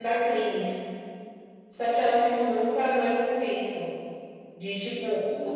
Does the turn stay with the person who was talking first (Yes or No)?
No